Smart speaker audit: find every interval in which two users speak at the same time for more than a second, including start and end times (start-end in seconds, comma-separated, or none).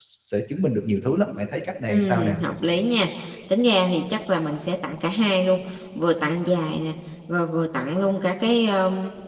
none